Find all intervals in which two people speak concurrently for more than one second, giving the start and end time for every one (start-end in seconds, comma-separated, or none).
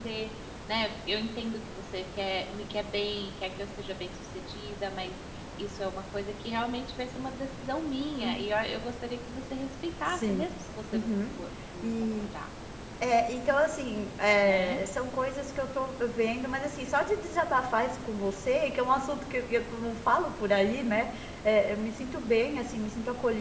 none